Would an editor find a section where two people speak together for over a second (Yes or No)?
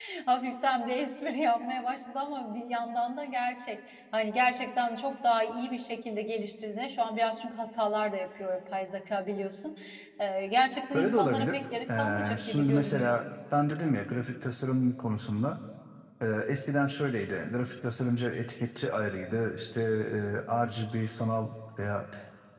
Yes